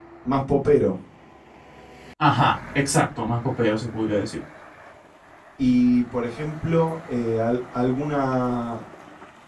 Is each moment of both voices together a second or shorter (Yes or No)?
Yes